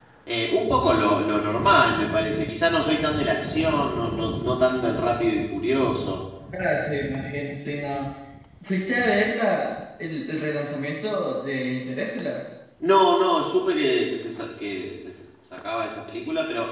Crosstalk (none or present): none